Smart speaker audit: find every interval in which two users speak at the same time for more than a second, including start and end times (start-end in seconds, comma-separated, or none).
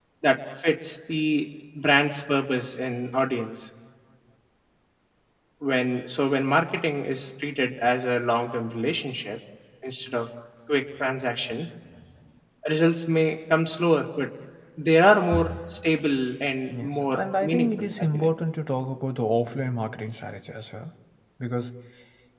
16.7-18.3